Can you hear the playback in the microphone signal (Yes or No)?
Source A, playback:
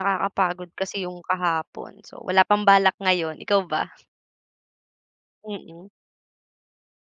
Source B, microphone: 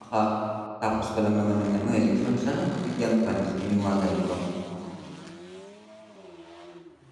No